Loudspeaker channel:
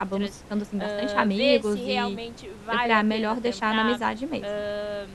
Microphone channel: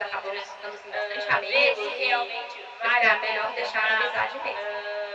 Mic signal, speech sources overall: both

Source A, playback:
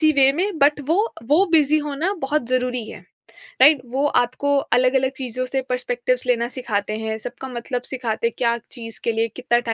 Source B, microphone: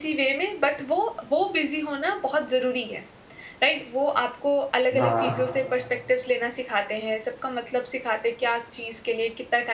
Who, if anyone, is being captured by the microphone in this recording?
both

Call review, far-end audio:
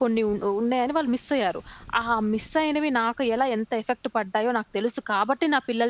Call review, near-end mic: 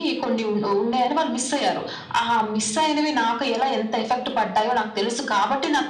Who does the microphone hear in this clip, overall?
echo only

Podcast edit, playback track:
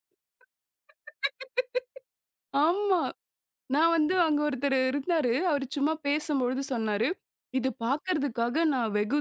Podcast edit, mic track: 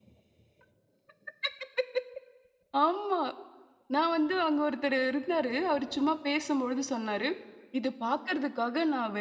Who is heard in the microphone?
echo only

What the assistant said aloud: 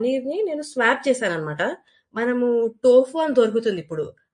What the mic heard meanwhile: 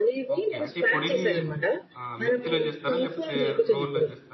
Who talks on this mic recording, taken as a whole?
both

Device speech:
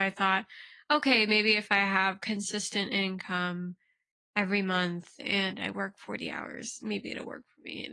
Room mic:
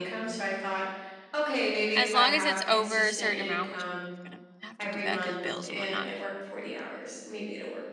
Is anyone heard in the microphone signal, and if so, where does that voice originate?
both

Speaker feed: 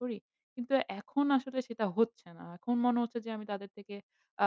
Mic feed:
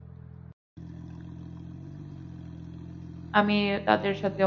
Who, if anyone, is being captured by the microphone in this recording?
user only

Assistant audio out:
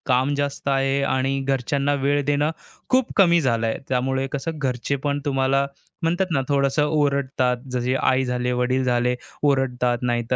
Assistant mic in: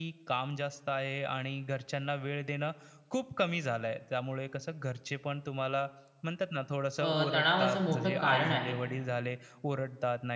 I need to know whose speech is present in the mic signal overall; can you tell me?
both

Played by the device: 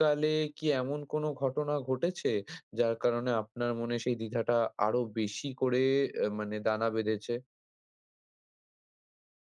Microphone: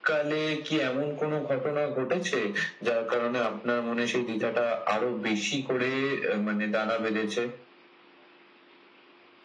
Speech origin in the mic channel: echo only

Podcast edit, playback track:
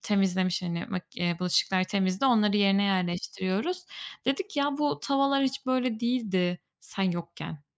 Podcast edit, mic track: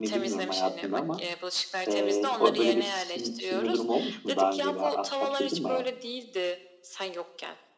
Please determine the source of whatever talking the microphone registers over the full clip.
both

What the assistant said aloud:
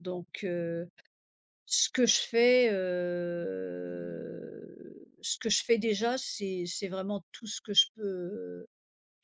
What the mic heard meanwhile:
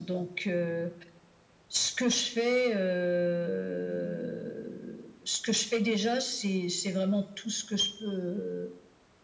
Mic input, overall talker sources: echo only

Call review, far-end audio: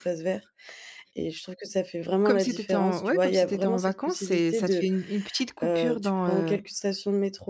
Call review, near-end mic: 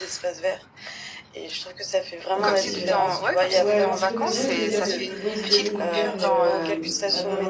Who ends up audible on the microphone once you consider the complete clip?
both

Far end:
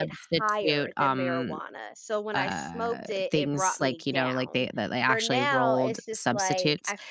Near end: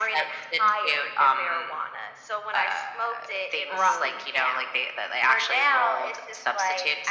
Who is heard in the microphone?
both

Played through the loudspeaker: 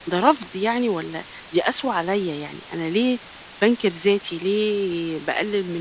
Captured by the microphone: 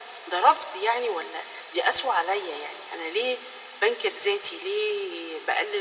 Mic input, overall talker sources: echo only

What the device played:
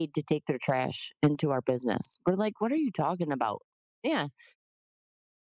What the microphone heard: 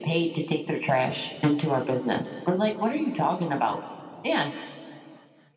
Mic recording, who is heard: echo only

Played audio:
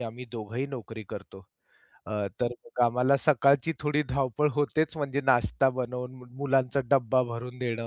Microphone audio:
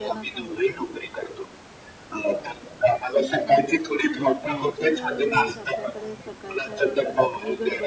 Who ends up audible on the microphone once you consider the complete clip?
both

